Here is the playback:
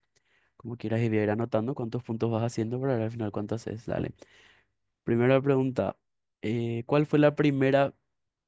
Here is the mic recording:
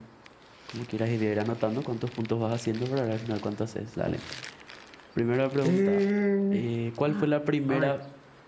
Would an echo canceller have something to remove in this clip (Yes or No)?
Yes